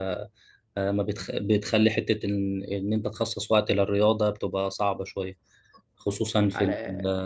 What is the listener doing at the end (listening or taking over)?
listening